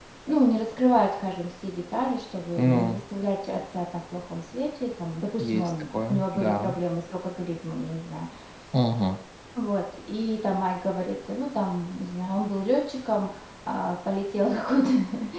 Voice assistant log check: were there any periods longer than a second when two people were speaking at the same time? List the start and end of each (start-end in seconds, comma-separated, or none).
5.4-6.7